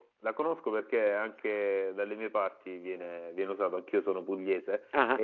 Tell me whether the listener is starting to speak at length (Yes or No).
No